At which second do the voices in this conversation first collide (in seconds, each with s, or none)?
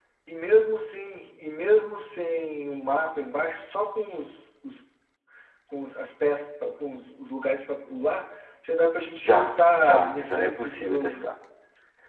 9.2 s